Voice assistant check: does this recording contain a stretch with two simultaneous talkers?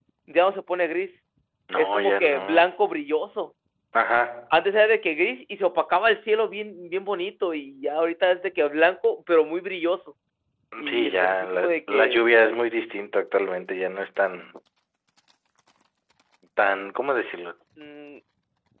Yes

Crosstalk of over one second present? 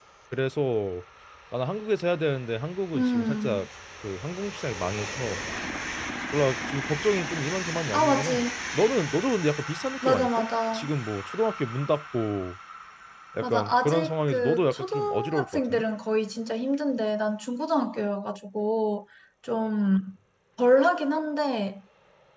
Yes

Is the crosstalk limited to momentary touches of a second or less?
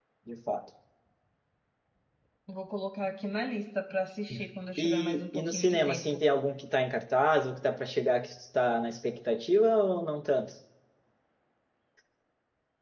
No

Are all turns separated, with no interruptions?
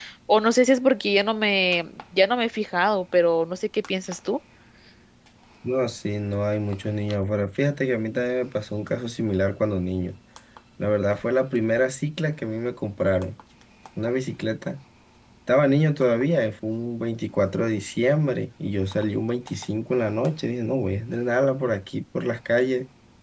Yes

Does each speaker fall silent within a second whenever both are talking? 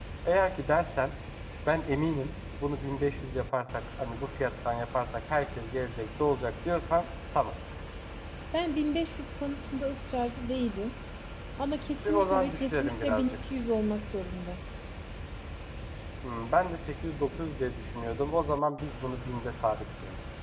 No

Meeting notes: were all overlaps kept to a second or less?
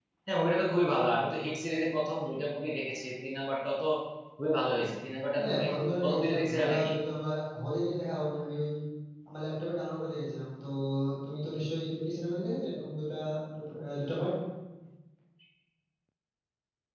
No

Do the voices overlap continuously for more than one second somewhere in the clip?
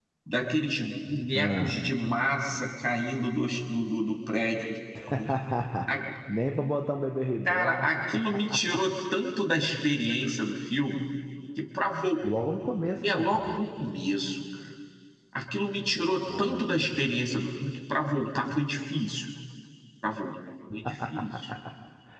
No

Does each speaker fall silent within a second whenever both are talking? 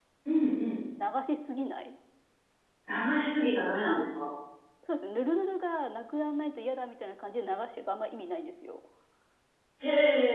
Yes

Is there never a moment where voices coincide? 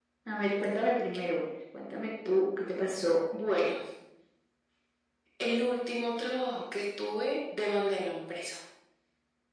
Yes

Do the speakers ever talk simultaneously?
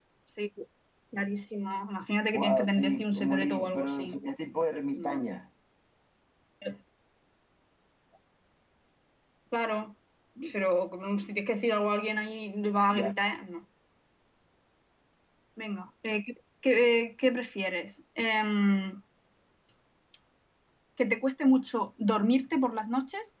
Yes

